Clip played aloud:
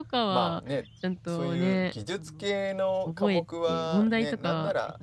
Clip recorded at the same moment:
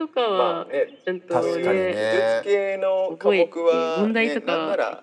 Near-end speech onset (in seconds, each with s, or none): 1.3 s